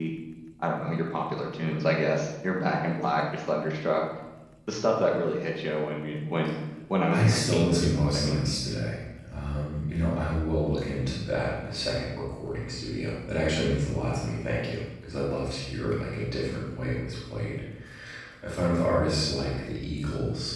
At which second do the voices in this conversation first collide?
7.1 s

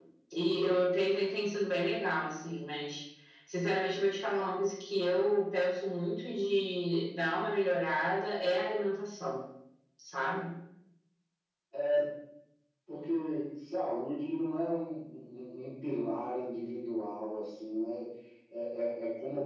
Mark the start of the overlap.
none

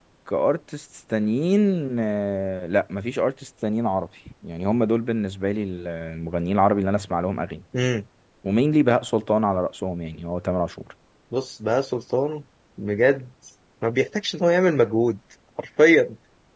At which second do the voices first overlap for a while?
none

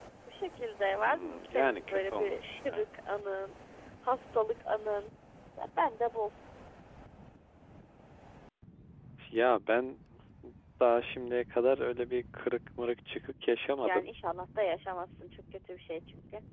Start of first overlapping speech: 1.0 s

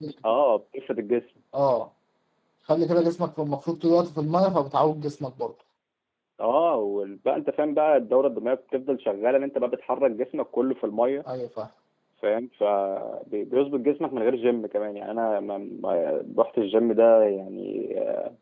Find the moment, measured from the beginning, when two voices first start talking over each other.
none

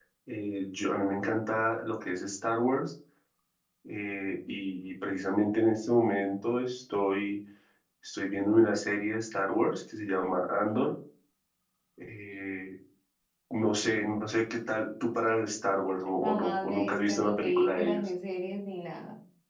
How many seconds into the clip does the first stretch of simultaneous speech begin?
16.2 s

